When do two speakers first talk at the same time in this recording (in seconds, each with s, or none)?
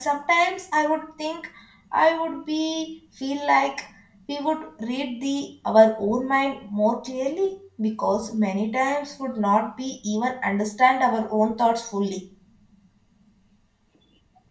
none